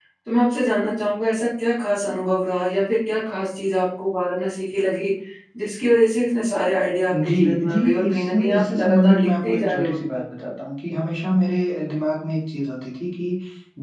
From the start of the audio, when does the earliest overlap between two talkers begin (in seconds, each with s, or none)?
7.1 s